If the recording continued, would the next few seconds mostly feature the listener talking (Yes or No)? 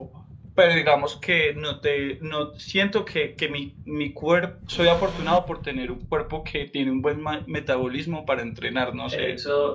Yes